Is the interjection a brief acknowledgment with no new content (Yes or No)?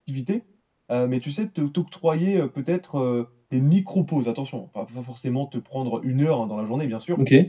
Yes